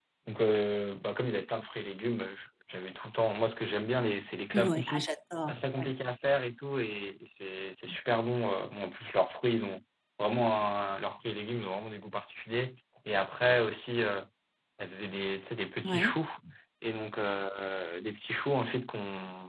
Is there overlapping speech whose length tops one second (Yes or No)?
No